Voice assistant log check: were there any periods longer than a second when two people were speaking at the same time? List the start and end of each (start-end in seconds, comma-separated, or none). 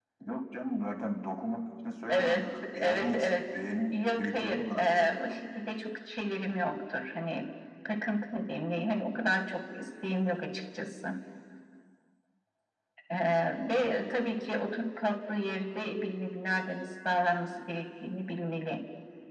2.1-3.4, 3.9-5.4